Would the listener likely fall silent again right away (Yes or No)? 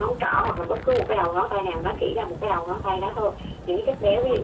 Yes